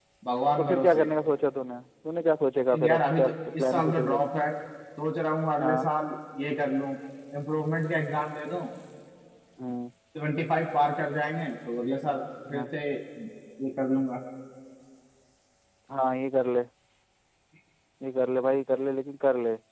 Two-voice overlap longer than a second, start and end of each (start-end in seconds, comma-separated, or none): 2.7-4.2